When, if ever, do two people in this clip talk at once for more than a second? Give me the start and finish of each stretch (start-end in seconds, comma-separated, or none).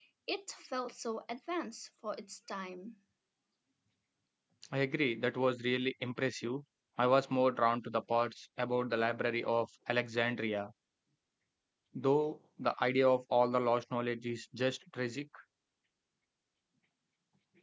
none